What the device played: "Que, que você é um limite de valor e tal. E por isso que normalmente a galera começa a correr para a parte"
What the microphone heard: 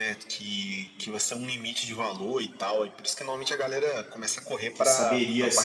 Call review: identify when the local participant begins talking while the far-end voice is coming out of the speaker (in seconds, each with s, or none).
4.7 s